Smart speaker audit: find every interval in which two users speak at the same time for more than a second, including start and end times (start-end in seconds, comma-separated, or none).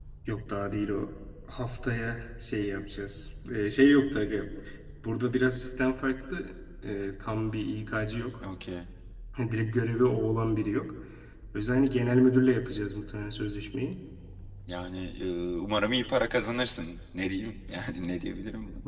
none